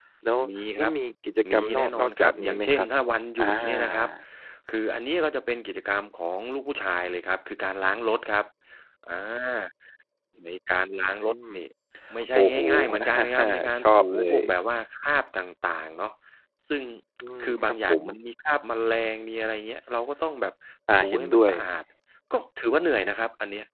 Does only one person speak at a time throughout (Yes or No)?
No